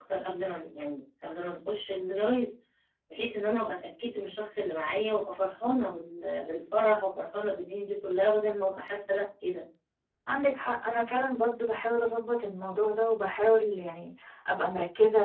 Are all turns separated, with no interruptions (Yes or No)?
Yes